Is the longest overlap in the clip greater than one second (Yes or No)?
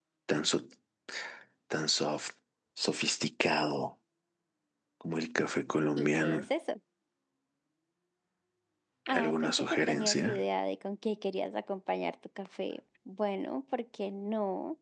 Yes